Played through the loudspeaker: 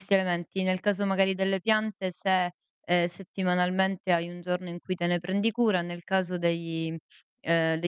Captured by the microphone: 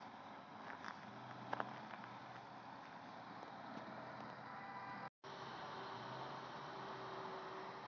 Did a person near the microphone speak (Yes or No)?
No